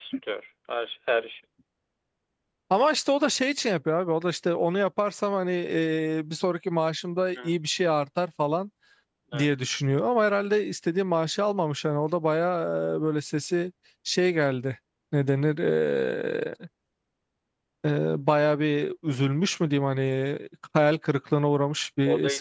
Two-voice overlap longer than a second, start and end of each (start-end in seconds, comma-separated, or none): none